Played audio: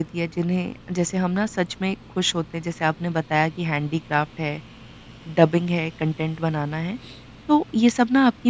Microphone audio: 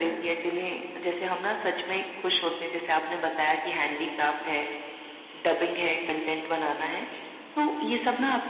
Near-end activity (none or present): none